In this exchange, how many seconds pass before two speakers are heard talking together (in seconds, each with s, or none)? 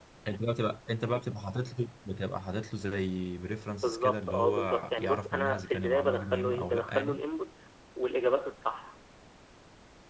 3.8 s